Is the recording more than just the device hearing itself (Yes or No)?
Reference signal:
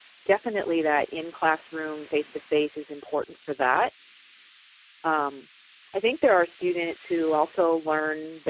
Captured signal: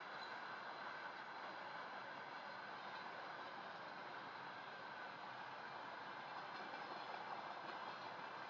No